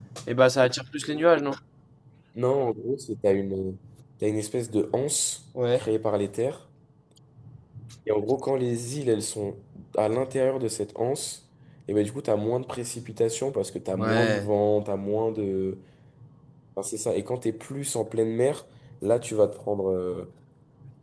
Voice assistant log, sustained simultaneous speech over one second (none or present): none